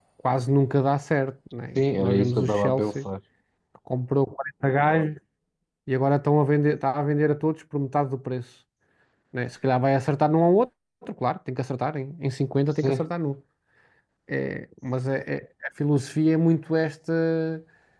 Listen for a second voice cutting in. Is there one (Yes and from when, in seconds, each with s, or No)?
Yes, from 1.8 s